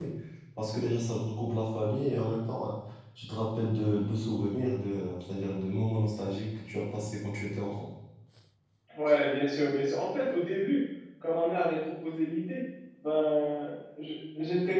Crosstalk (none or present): none